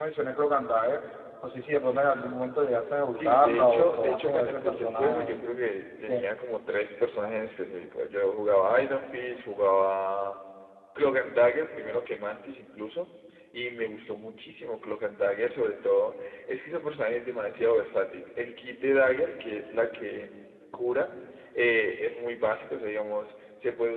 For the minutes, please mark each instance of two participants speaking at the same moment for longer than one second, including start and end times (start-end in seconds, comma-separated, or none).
3.2-5.4